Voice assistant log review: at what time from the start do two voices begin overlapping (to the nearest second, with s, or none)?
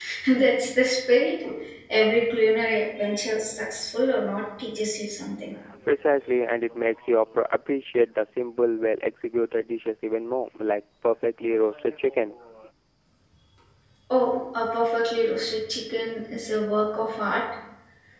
none